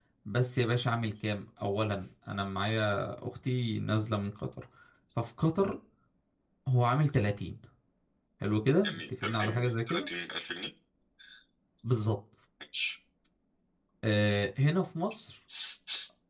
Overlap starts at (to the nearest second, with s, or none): 9 s